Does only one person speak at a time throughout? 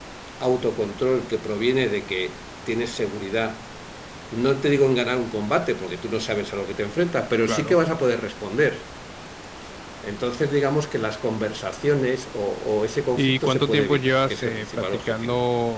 No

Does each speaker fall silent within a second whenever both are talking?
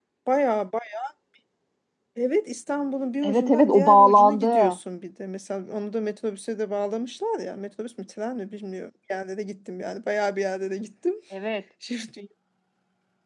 No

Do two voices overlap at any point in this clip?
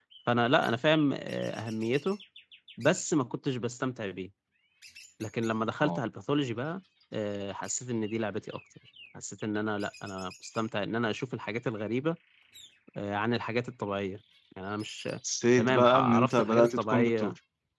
Yes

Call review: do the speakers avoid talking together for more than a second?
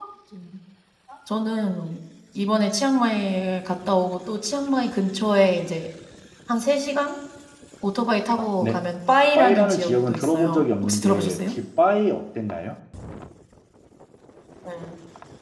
No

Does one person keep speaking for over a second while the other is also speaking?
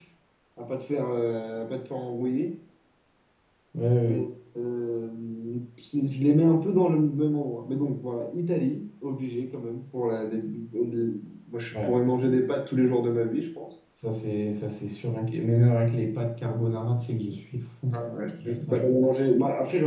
No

